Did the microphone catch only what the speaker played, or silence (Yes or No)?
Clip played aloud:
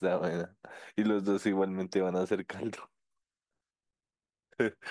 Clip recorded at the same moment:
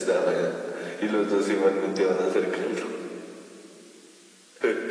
Yes